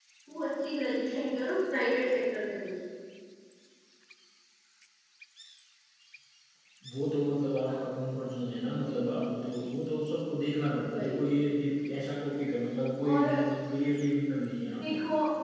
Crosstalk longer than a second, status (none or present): none